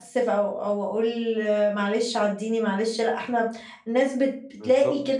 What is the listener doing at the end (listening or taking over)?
listening